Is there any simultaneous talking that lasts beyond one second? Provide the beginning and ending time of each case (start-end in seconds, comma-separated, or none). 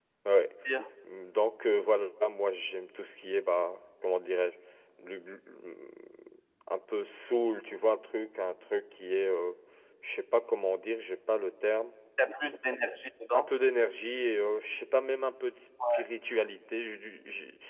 none